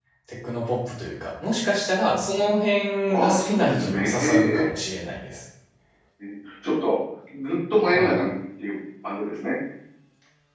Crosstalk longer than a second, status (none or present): present